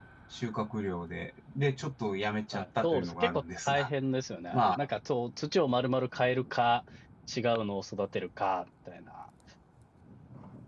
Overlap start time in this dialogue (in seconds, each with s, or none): 2.5 s